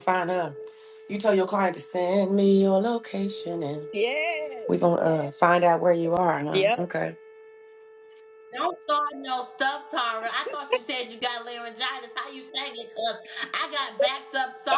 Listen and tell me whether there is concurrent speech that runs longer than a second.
No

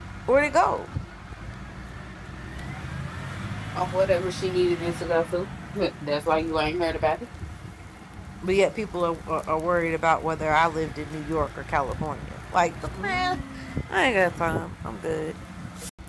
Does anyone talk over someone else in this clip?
No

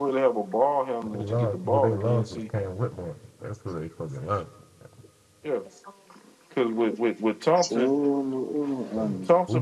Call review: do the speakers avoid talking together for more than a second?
No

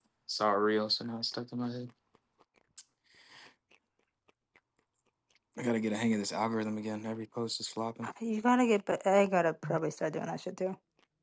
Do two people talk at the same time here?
No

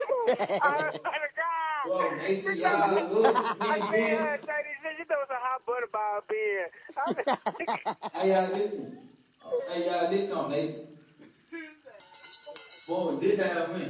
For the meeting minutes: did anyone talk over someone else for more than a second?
Yes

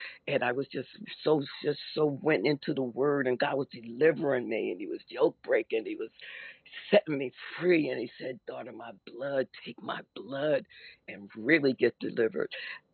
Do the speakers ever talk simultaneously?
No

